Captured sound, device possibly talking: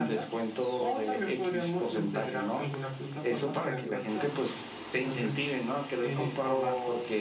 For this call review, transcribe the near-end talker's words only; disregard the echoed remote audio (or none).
none